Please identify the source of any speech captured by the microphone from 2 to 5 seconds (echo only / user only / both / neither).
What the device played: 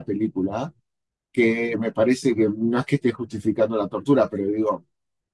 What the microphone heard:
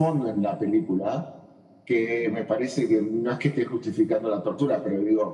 echo only